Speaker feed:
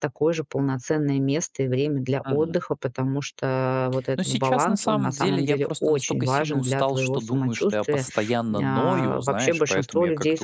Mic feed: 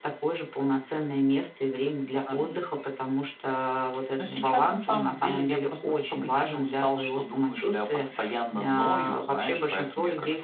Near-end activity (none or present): none